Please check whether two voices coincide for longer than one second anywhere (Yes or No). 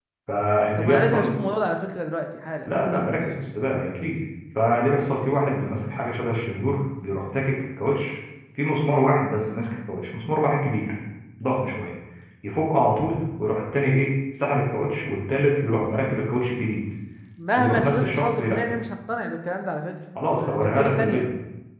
Yes